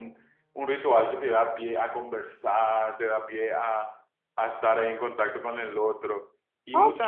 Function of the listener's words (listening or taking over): taking over